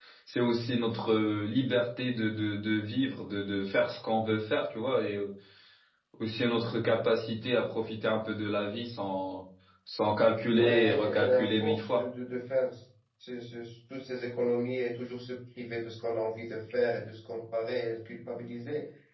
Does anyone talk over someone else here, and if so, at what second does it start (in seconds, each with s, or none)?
10.5 s